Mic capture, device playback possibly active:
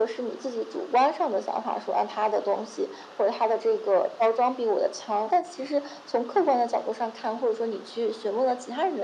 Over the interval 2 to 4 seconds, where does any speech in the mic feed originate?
echo only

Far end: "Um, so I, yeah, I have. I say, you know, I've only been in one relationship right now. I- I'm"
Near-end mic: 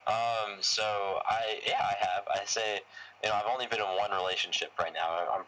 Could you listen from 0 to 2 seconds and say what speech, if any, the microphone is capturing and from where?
echo only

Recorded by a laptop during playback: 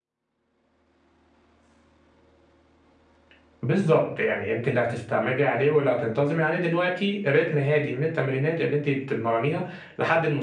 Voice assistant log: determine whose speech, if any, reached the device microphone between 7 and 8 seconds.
user only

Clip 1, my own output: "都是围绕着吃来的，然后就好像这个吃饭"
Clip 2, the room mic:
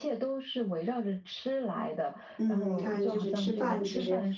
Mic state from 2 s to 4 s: both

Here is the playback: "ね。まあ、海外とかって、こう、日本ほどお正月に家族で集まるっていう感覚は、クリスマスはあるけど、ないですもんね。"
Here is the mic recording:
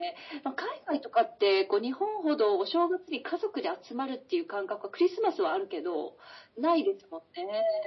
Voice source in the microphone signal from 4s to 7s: echo only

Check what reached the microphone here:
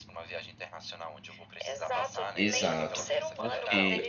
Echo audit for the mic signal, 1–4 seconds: both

